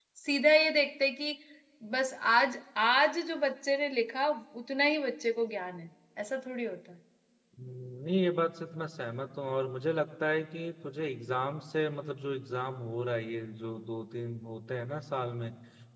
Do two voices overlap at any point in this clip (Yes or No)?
No